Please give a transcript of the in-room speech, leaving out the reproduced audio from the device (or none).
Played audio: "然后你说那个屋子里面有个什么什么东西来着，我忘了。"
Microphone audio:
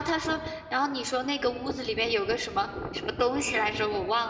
none